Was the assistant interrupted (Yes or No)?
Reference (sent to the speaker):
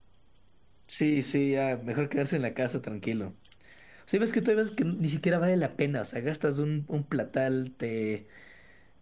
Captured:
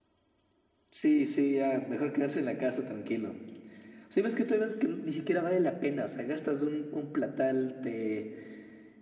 No